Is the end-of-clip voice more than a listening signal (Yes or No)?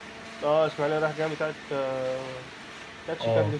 Yes